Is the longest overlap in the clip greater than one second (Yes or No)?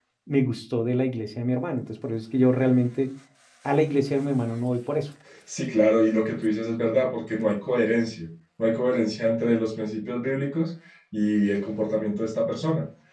No